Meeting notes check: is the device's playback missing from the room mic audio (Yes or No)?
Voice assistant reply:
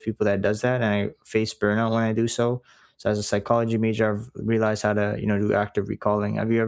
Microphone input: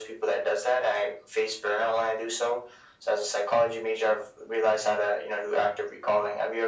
No